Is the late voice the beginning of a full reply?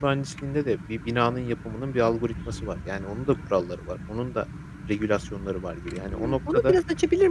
Yes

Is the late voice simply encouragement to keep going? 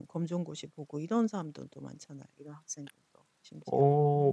No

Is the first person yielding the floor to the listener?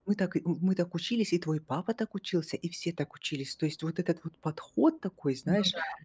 No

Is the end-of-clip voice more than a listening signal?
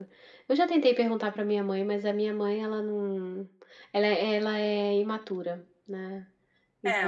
Yes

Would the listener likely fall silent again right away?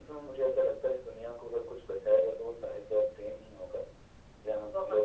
No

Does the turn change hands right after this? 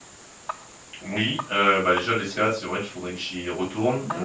No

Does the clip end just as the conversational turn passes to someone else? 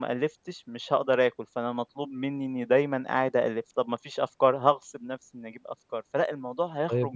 Yes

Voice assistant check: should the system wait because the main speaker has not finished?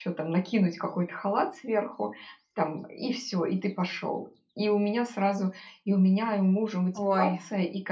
Yes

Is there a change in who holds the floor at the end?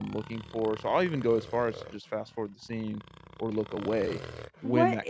Yes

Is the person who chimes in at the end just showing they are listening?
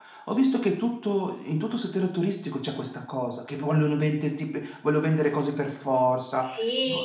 No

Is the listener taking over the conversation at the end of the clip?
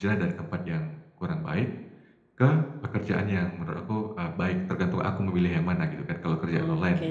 Yes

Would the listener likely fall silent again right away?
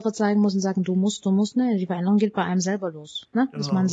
Yes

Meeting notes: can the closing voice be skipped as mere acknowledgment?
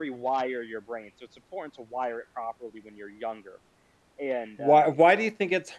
No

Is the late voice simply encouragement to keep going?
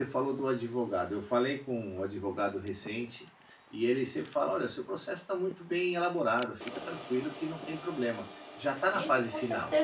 No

